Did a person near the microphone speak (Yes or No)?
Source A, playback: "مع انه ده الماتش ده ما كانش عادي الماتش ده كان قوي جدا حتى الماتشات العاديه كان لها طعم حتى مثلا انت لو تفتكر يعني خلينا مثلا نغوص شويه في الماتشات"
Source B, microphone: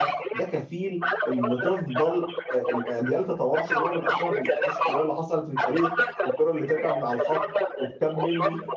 Yes